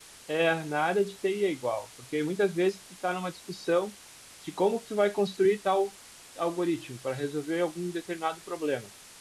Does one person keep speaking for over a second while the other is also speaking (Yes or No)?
No